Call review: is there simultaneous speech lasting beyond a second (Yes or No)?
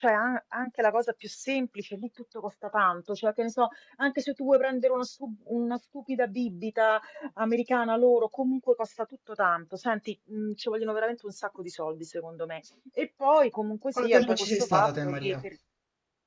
Yes